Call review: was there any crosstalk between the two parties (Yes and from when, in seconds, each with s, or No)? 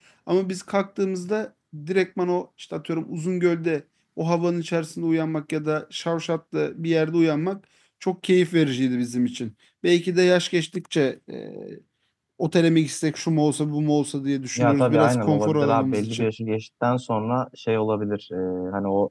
Yes, from 14.6 s